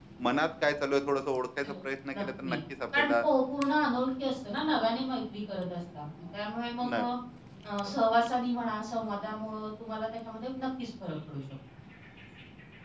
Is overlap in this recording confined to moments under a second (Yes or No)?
Yes